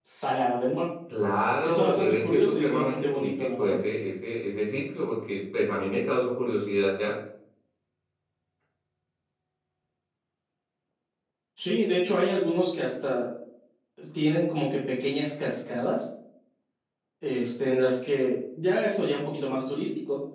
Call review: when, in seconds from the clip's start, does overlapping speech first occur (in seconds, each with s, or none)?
1.6 s